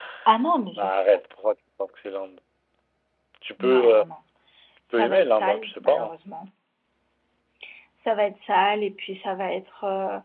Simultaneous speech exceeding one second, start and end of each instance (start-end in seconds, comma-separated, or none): 4.9-6.2